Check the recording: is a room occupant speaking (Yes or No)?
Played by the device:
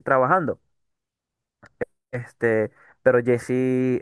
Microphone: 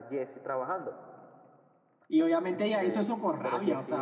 Yes